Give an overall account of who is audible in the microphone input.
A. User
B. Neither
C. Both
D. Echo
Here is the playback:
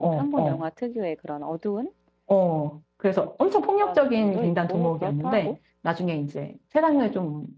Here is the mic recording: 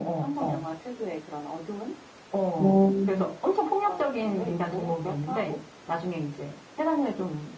C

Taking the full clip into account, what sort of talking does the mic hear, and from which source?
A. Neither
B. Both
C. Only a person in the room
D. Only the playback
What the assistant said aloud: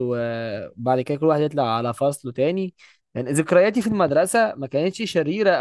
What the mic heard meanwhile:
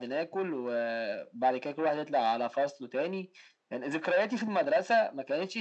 D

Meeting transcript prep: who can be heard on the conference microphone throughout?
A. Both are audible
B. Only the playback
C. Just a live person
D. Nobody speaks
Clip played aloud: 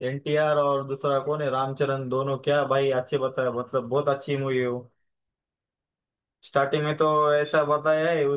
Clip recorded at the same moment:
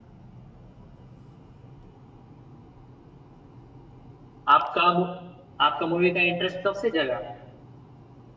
C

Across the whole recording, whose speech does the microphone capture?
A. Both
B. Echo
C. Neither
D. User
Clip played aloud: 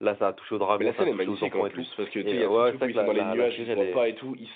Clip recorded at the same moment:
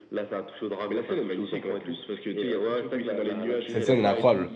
A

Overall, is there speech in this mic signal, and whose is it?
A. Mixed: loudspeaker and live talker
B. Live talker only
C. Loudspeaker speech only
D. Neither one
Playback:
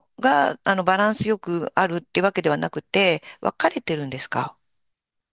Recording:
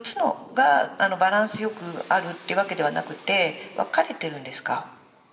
C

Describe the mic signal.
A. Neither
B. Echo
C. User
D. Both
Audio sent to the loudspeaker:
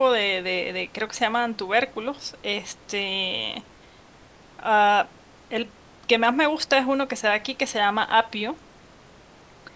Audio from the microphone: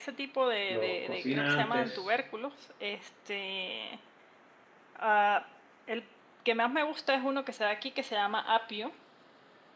D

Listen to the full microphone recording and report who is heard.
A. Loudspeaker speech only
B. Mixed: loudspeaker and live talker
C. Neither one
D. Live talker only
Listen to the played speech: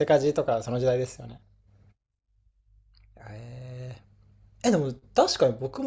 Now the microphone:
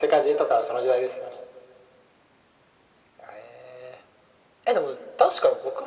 A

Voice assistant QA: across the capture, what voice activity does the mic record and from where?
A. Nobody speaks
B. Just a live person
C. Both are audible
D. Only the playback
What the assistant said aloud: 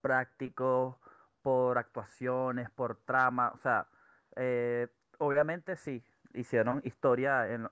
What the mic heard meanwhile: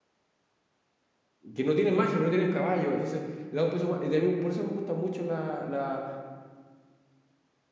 B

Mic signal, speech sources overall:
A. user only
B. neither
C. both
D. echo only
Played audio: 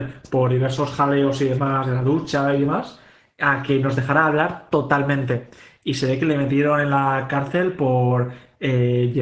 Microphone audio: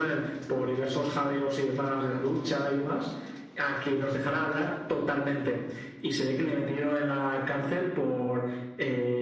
D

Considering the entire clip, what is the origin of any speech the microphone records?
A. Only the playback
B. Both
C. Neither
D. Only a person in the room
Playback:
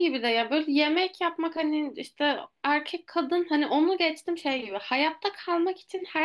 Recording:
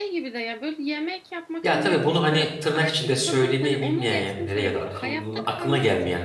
B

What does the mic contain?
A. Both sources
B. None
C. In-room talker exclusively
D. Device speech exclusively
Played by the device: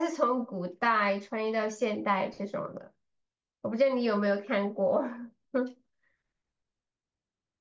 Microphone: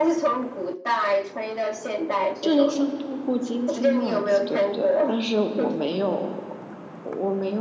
A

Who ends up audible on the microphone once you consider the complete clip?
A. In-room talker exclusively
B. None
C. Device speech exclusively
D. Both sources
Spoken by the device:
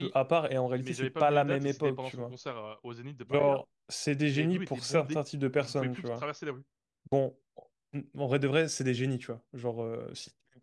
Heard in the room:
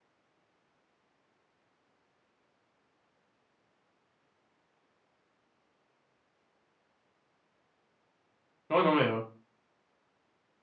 A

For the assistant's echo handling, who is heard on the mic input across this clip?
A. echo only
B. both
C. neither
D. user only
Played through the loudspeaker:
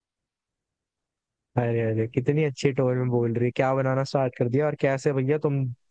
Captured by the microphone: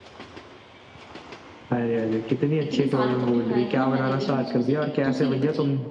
B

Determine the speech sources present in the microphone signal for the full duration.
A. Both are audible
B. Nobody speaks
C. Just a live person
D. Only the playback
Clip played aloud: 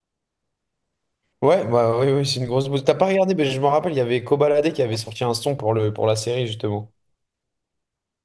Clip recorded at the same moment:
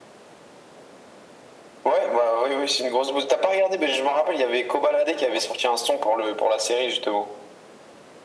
D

